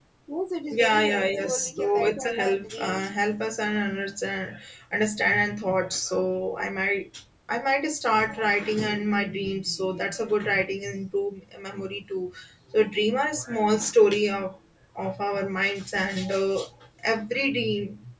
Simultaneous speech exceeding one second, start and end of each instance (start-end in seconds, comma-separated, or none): 0.7-3.1